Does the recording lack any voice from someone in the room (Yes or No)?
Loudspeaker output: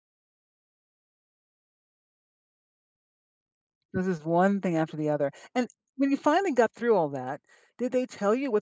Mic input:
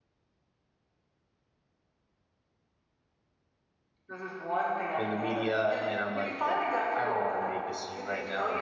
No